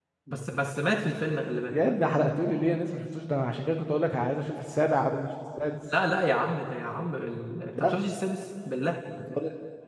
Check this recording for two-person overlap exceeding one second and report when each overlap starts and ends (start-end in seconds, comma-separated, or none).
none